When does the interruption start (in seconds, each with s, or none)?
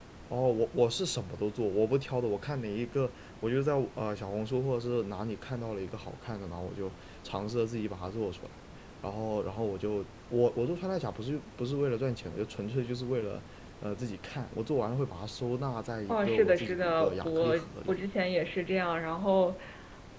16.1 s